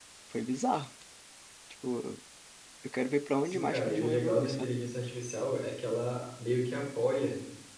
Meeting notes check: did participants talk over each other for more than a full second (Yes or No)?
Yes